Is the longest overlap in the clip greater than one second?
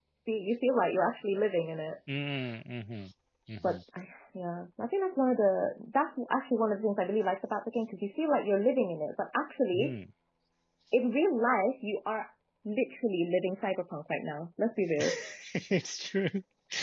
No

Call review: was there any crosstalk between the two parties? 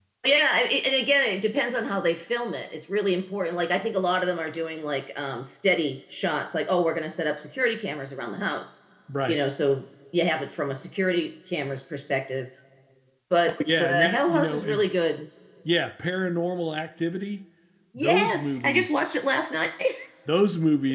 Yes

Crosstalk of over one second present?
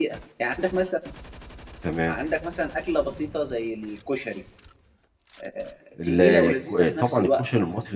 Yes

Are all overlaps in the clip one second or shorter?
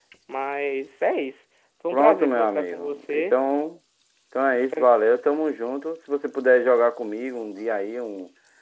No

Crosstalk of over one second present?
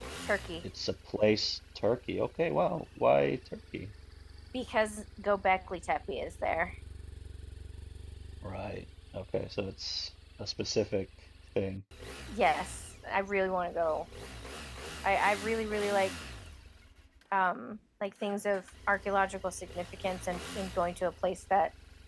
No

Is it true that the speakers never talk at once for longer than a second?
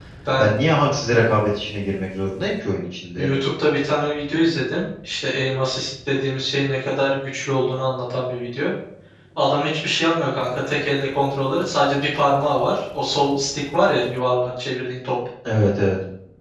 Yes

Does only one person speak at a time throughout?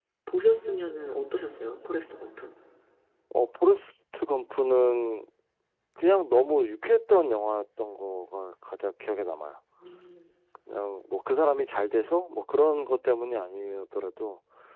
Yes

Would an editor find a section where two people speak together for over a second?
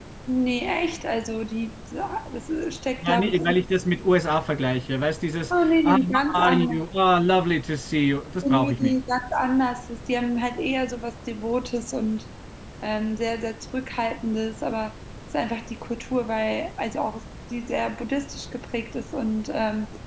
Yes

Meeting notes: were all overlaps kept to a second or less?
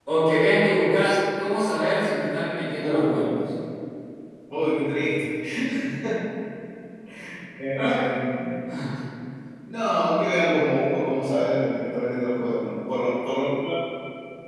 Yes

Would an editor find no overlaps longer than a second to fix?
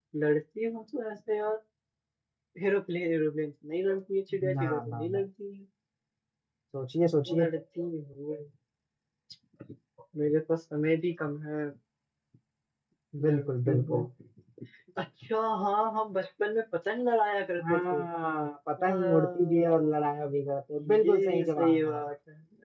No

